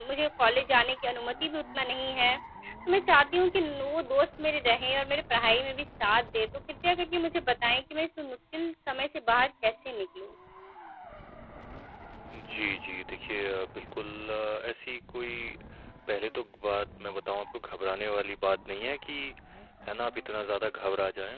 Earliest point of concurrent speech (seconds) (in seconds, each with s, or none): none